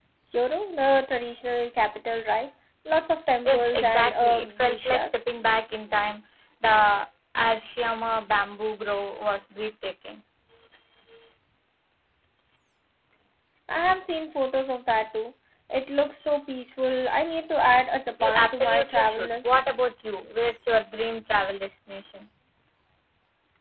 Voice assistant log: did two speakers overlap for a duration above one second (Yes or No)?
Yes